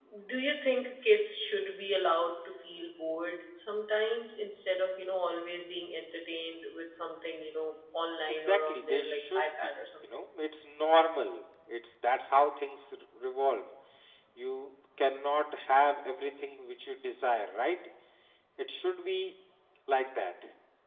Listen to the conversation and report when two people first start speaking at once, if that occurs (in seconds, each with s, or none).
8.5 s